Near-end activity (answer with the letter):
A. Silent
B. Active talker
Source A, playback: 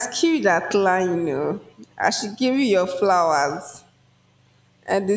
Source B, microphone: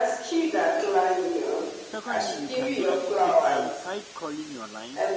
B